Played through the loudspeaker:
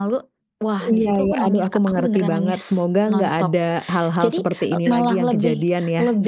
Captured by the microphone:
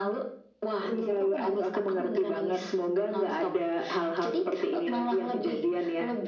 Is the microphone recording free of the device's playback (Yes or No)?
No